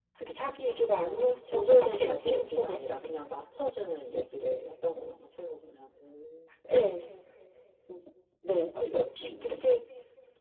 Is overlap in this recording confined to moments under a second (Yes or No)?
No